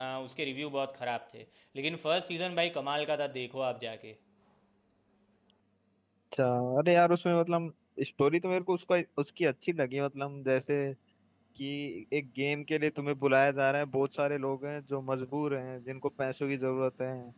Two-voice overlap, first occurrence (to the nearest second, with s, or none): none